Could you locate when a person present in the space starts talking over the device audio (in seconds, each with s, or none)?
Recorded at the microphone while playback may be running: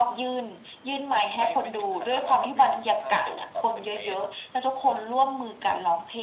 none